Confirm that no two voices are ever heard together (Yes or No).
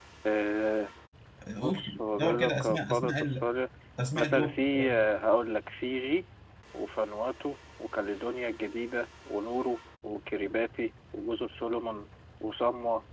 No